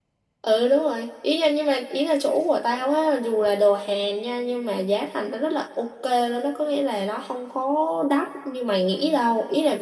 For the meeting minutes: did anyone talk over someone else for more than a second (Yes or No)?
No